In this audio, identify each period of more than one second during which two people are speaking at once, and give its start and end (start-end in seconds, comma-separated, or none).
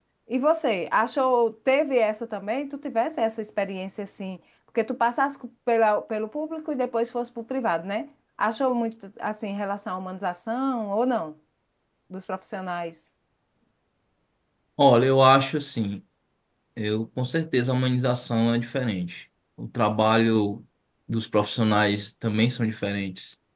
none